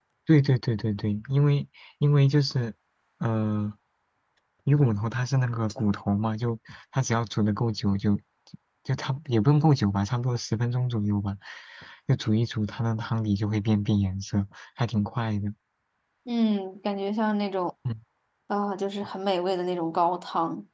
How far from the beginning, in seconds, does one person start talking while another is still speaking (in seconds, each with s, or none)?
none